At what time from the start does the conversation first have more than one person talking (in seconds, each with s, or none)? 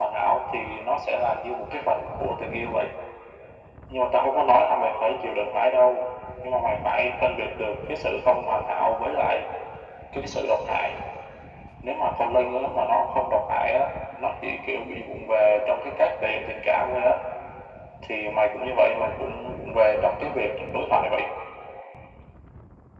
none